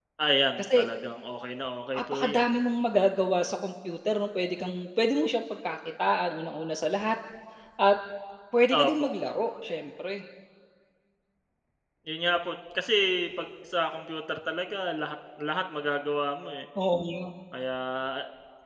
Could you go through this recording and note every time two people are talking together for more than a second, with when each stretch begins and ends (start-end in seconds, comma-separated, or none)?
none